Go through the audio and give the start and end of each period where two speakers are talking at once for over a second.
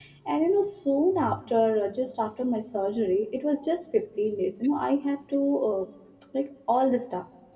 none

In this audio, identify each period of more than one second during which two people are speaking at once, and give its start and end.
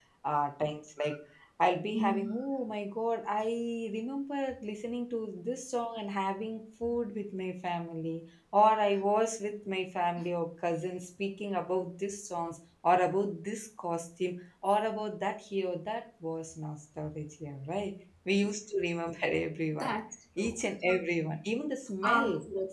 none

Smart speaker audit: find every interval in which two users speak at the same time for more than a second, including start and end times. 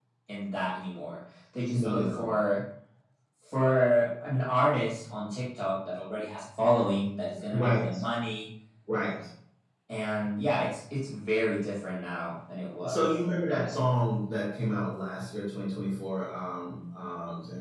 none

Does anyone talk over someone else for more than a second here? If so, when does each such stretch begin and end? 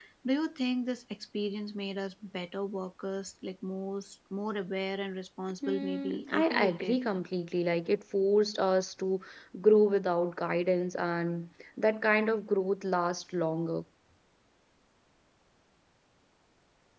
5.7-7.0

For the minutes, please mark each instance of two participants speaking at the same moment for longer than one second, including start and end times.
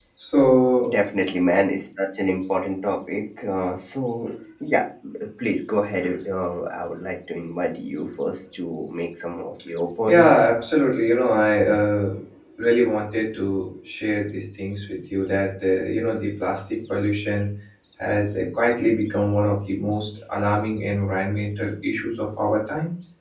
none

